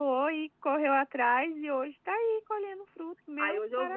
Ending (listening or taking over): taking over